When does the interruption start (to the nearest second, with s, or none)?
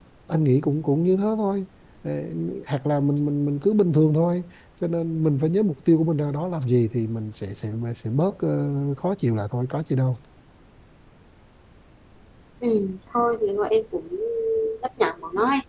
none